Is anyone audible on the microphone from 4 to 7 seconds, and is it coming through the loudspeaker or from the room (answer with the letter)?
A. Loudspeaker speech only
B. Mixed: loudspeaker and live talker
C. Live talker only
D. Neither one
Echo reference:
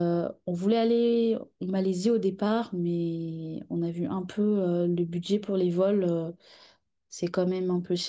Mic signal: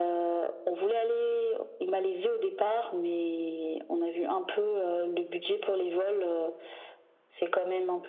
A